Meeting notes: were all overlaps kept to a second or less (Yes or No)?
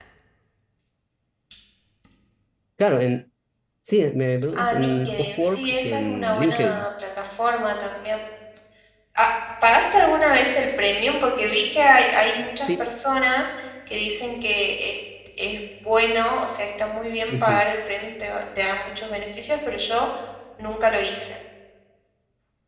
No